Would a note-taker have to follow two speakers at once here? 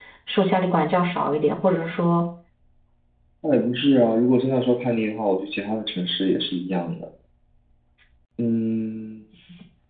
No

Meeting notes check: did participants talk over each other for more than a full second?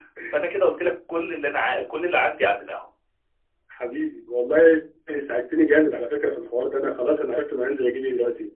No

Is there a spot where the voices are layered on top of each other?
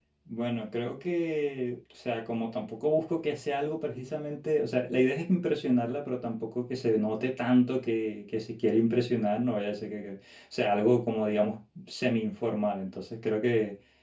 No

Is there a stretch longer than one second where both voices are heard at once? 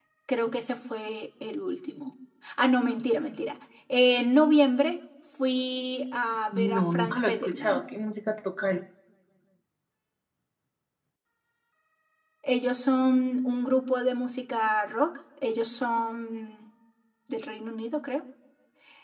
Yes, from 6.5 s

